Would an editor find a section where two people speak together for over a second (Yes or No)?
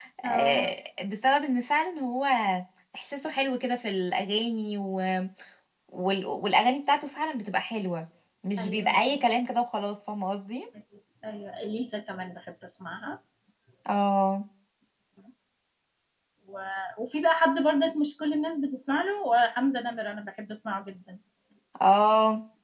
No